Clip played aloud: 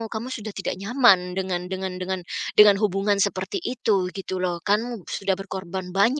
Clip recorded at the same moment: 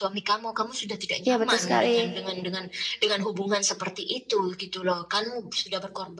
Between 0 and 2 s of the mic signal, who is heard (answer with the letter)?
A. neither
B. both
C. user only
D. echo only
B